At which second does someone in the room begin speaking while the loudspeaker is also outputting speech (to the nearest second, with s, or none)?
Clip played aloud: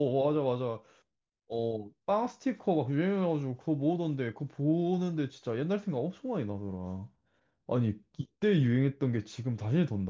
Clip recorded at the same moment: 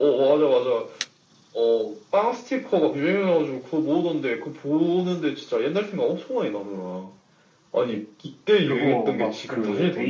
9 s